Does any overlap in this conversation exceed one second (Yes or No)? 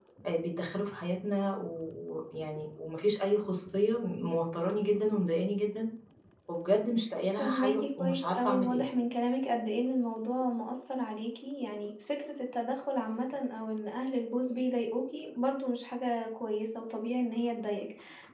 Yes